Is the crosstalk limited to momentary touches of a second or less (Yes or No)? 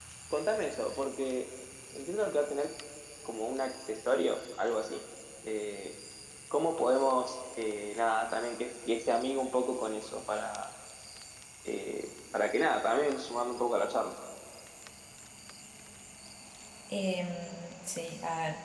Yes